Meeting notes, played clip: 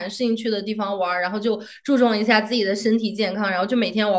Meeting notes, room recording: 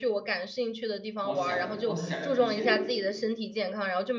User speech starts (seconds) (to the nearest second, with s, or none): 1 s